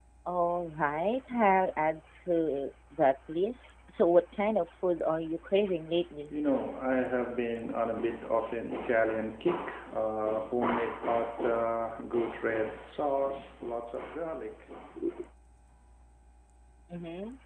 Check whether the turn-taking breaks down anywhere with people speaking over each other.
No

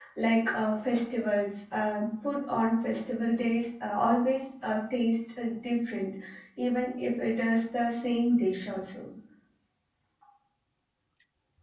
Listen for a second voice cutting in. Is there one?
No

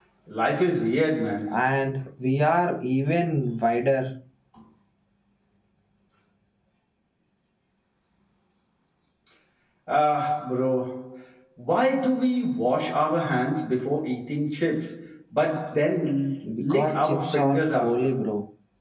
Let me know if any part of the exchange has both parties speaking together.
Yes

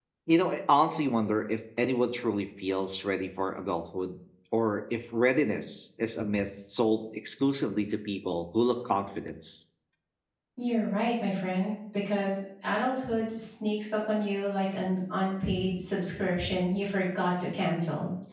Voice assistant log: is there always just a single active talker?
Yes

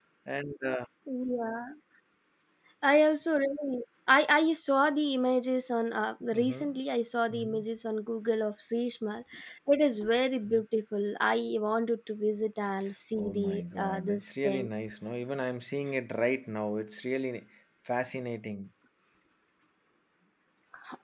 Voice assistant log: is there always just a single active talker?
No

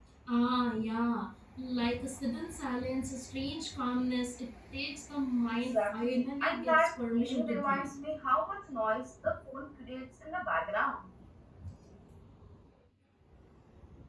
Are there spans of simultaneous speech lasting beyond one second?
Yes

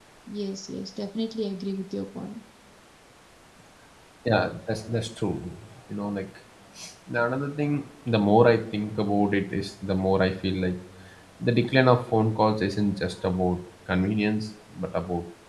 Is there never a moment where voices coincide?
Yes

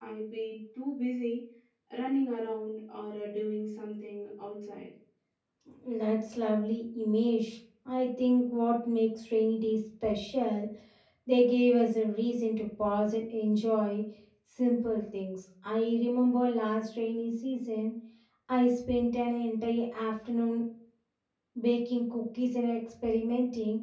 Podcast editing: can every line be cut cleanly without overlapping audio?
Yes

